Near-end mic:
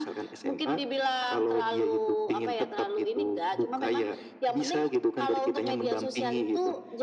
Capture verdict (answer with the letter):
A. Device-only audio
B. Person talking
A